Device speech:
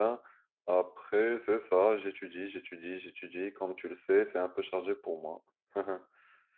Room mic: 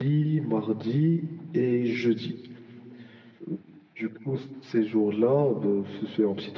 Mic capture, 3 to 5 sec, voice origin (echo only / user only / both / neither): user only